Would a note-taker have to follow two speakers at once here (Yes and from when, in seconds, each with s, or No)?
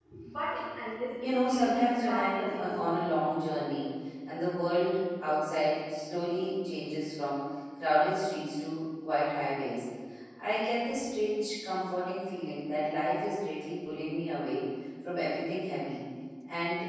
Yes, from 1.2 s